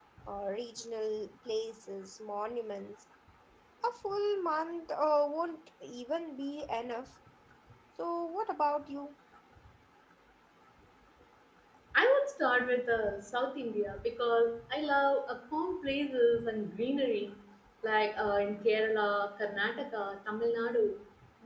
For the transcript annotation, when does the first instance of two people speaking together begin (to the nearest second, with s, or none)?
none